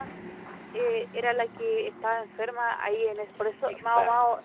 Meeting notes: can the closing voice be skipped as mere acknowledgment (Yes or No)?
Yes